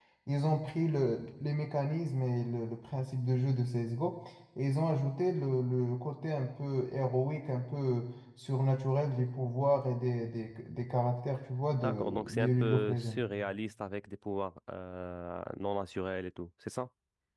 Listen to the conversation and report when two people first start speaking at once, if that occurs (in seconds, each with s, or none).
11.7 s